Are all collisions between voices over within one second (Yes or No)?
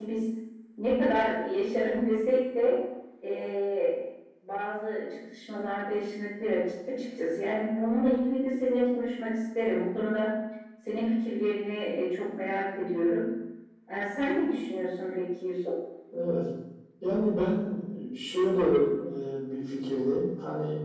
Yes